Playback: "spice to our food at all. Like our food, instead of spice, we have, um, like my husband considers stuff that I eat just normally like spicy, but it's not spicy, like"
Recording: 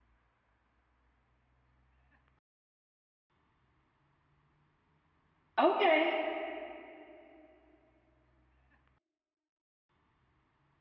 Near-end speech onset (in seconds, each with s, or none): 5.6 s